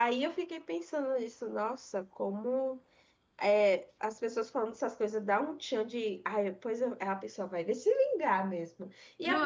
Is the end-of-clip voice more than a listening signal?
No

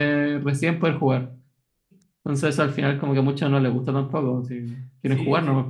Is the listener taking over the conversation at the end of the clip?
Yes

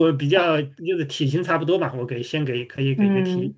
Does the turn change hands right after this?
Yes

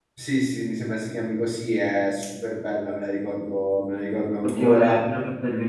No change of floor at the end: No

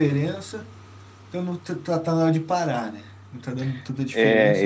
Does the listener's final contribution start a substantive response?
Yes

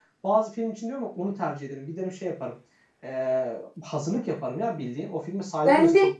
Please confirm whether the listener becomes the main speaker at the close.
Yes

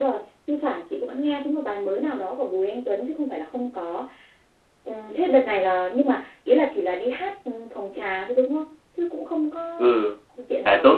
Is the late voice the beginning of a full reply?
Yes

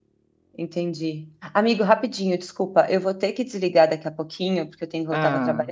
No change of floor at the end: Yes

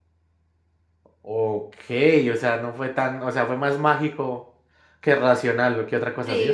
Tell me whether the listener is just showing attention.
Yes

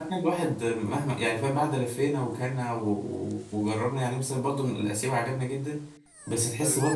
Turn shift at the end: No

